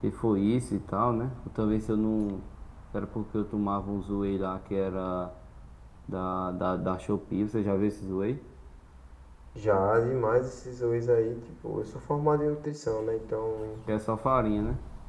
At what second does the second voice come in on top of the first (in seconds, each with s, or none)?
none